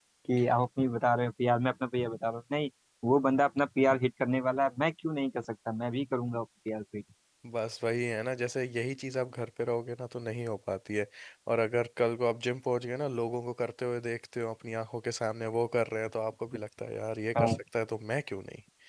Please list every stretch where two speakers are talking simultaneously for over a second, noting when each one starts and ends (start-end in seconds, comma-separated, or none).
none